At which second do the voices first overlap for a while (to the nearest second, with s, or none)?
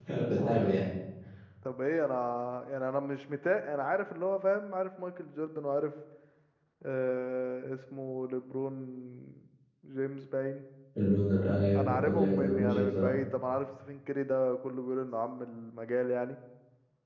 12 s